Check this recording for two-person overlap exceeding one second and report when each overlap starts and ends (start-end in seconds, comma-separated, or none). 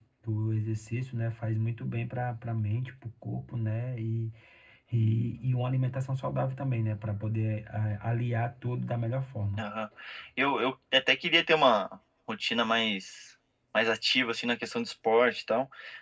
none